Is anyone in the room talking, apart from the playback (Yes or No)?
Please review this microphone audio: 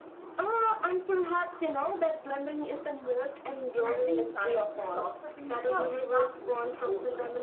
Yes